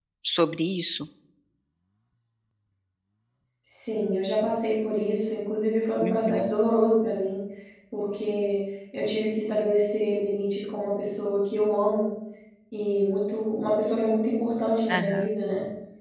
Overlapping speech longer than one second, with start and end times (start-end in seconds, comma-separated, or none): none